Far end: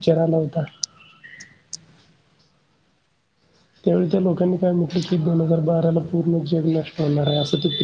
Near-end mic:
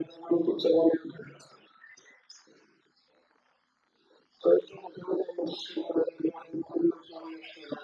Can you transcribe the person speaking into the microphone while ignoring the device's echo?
none

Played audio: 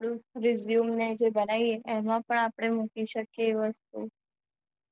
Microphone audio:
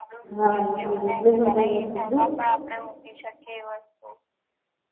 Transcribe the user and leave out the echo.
હા એટલ જ એટલેજ મેં તમને કીધુ.

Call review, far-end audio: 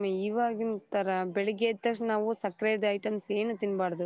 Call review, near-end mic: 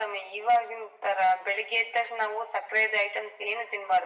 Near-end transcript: none

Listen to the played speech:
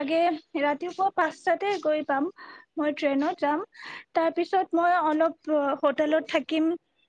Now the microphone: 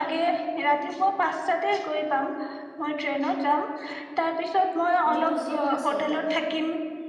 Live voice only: মিউজিয়াম এটা

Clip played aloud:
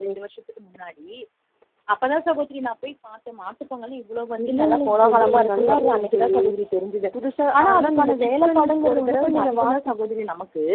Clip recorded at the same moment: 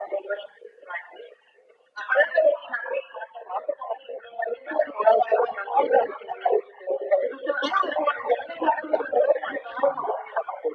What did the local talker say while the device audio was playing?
none

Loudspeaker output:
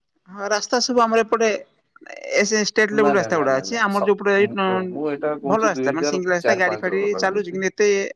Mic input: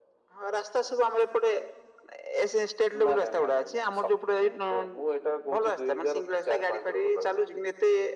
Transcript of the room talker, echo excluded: none

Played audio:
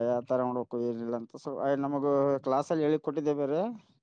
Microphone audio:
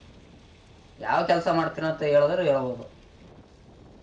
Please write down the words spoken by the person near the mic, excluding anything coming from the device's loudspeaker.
ಯಾವ ಕೆಲ್ಸ ಮಾಡ್ತೀನ ಅಂತ ಹೇಳುದ್ರರು ಹೇಳ್ಬೋದು

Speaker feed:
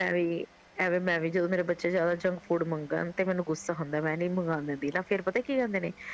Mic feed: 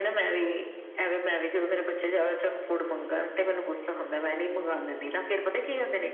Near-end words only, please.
none

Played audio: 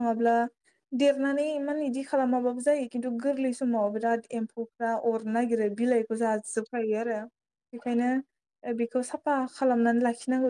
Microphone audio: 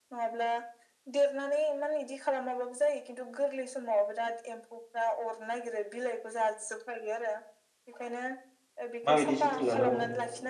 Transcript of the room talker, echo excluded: माबायदि जोथोन लानांगौ

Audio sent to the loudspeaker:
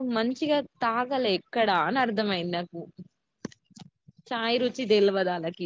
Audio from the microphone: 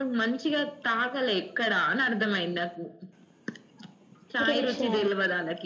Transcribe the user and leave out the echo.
ఇంకేం చేస్తున్నారు

